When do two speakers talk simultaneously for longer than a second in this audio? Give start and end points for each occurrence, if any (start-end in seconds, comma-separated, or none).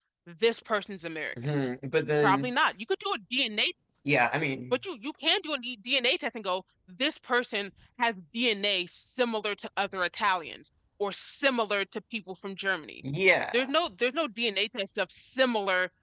none